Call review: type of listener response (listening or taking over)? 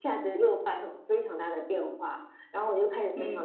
listening